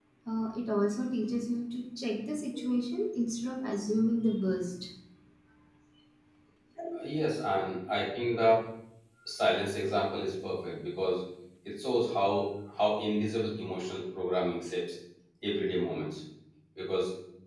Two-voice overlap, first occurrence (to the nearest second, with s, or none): none